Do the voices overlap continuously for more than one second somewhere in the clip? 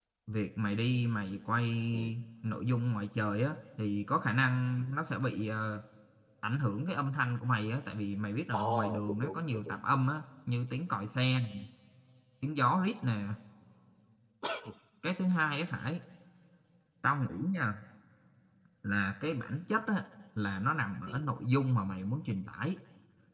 Yes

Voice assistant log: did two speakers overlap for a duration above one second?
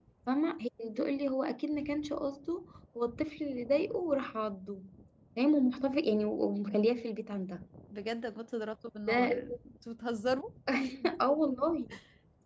No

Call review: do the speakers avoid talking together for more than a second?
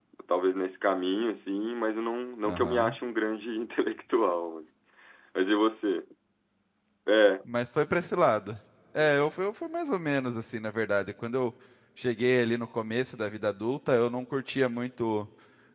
Yes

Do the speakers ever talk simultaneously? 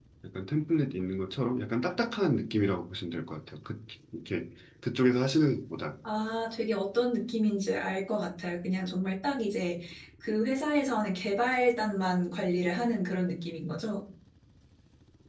No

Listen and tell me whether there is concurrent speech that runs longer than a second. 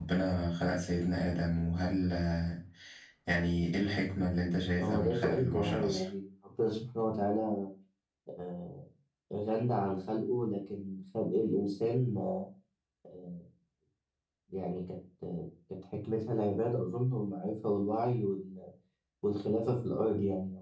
Yes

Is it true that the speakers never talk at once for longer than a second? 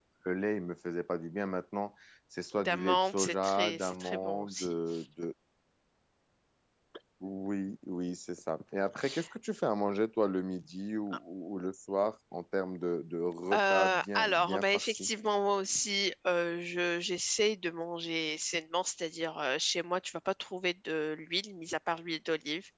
No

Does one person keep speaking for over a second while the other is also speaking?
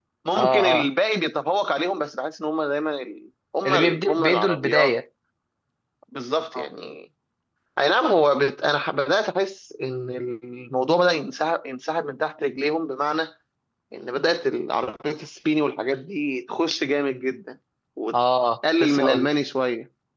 Yes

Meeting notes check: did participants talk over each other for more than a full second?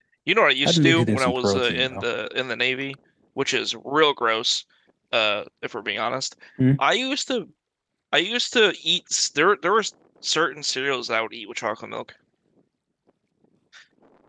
Yes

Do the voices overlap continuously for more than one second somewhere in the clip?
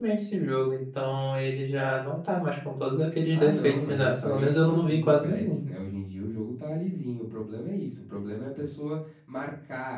Yes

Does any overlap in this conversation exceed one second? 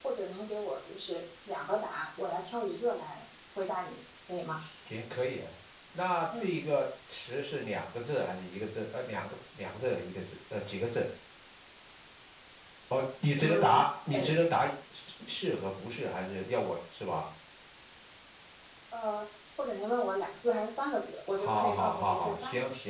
Yes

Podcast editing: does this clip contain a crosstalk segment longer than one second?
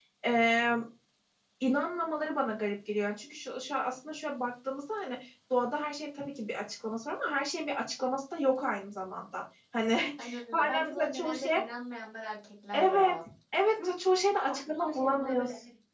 Yes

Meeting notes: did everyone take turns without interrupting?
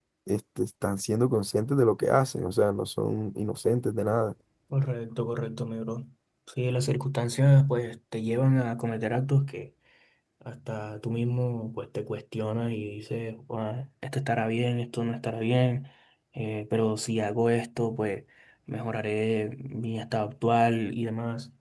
Yes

